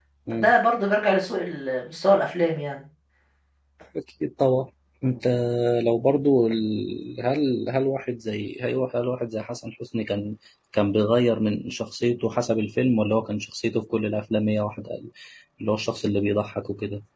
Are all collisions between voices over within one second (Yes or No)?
Yes